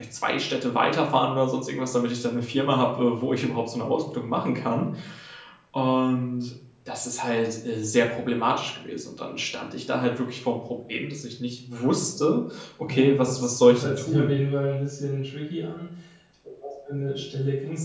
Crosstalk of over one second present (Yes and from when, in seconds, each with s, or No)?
Yes, from 12.8 s